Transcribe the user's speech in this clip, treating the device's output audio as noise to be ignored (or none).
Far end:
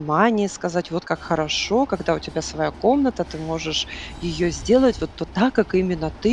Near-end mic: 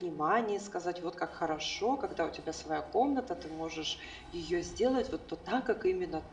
none